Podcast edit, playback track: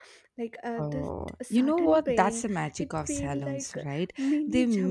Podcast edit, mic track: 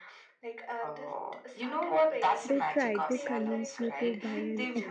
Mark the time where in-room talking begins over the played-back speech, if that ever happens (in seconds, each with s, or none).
2.4 s